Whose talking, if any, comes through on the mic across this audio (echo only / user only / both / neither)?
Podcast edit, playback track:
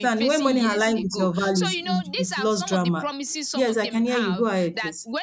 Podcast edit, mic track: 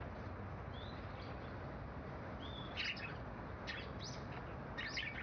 neither